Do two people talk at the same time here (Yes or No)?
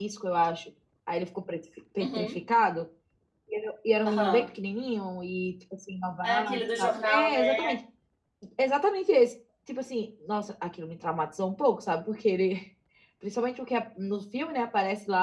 Yes